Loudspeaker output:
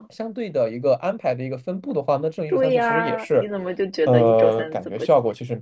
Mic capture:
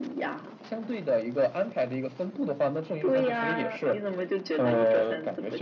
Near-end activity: none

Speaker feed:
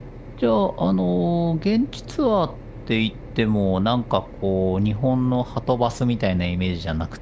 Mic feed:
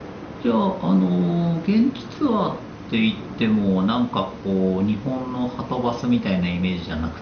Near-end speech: none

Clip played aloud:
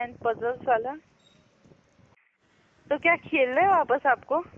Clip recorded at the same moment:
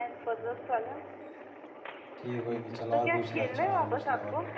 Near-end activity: present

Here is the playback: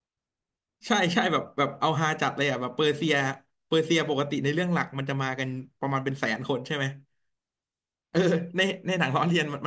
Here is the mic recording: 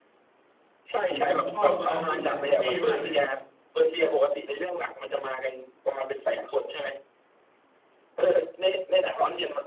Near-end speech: present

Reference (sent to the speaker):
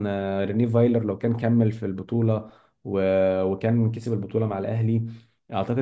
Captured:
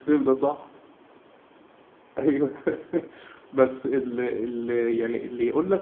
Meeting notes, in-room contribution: present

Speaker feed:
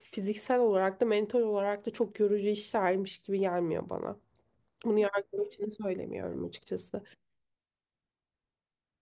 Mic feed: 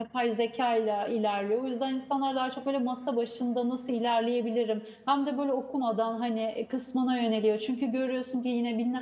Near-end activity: present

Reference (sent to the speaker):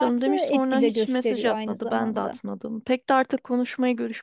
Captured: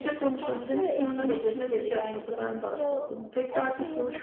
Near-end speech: present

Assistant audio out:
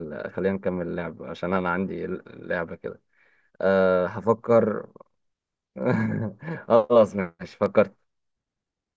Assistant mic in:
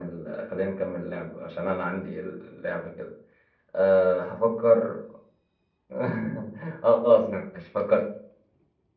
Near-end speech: none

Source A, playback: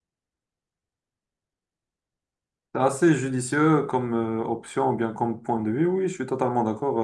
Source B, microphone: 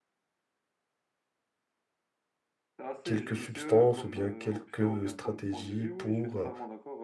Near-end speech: present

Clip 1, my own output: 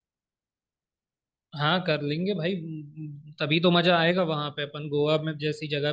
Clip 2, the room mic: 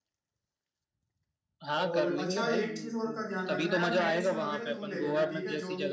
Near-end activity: present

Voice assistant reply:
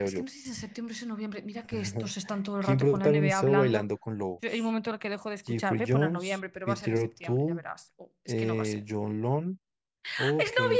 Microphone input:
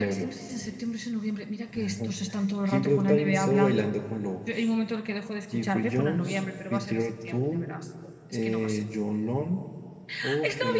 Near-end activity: none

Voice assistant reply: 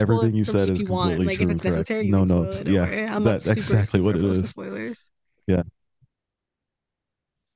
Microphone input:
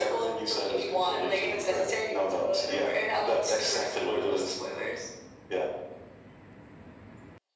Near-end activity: none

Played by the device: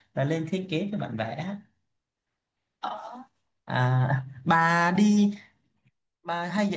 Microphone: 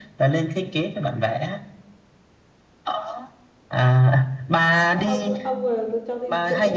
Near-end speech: present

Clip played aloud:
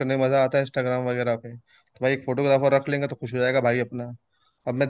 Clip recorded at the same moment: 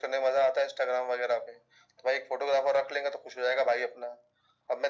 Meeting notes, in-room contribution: none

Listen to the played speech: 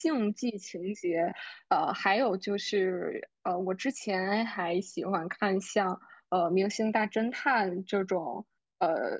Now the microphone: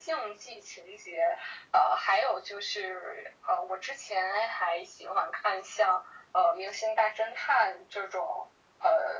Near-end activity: none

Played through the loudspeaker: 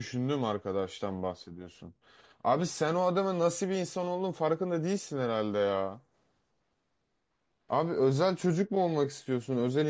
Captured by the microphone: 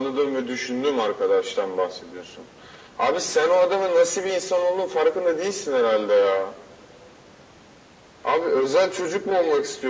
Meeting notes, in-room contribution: none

